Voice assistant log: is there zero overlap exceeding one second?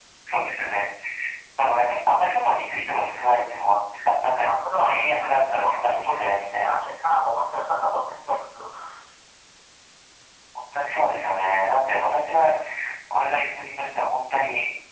No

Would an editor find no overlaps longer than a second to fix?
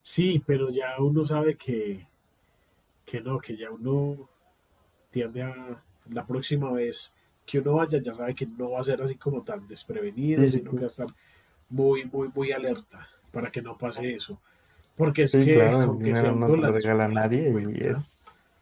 No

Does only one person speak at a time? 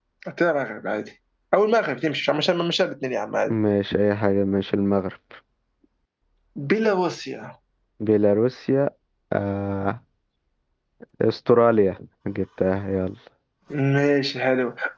Yes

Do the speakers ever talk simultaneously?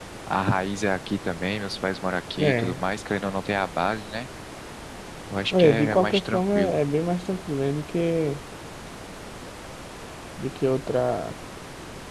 Yes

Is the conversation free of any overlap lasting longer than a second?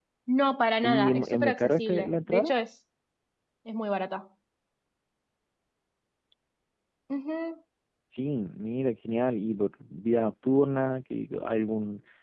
No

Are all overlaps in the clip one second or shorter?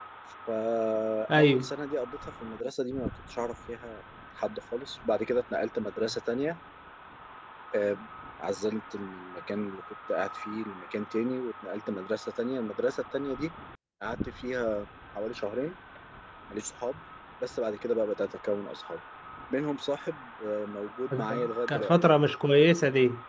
Yes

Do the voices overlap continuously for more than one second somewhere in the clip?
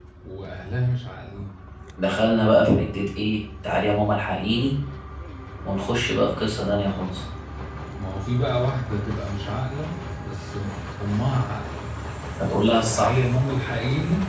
No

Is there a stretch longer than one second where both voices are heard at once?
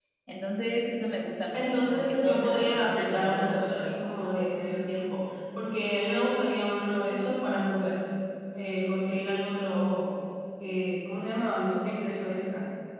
Yes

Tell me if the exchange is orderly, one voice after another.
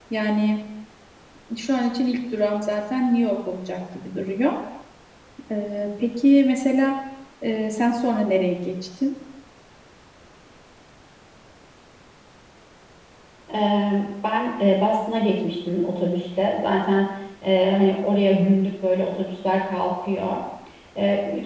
Yes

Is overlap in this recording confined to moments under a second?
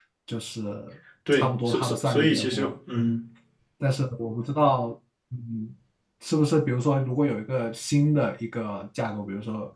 No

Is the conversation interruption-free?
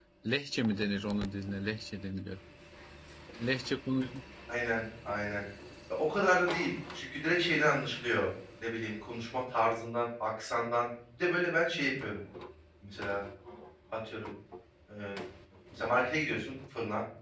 Yes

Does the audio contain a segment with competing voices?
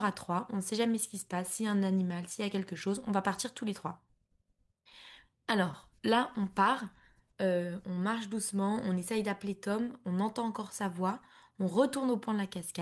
No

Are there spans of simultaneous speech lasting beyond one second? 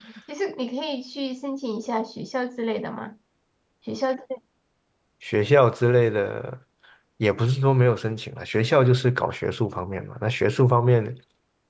No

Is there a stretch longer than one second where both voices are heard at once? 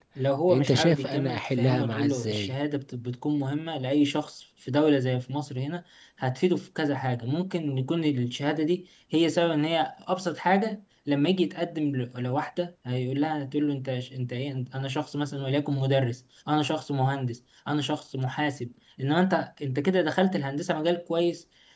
Yes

